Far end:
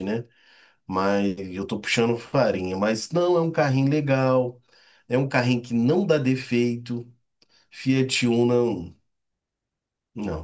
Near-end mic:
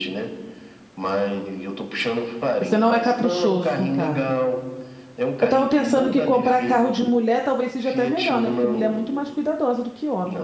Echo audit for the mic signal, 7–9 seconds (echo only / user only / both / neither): both